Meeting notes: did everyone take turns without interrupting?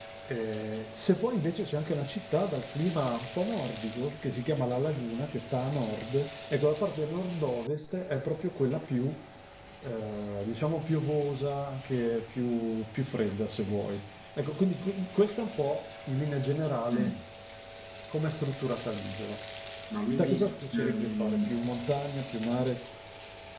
No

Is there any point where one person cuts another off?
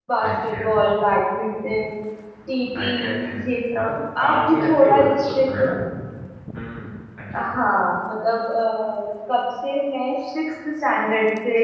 Yes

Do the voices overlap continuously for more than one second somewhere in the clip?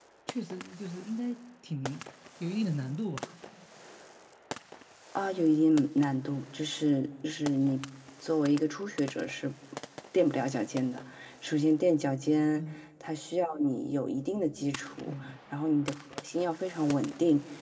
No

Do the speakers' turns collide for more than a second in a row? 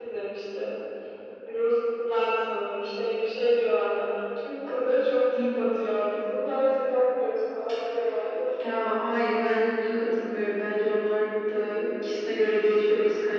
No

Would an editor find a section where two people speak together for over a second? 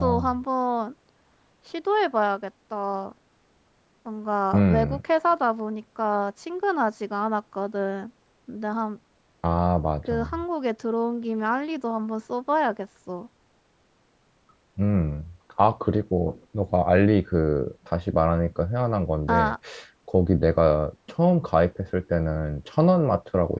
No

